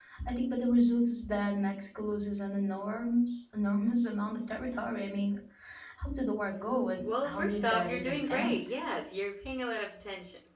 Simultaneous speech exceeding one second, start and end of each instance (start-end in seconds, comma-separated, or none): 7.0-8.6